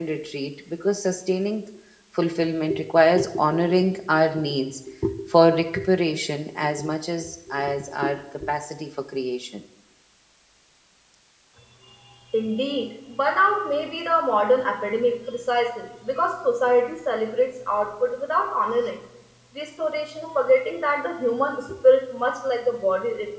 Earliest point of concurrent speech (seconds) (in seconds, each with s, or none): none